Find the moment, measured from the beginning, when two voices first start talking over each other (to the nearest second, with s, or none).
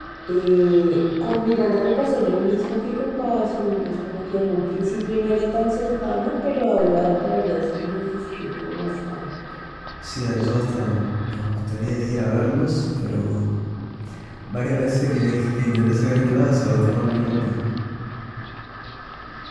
none